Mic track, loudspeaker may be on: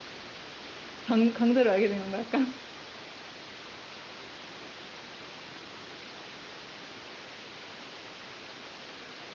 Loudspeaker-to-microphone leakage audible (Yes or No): No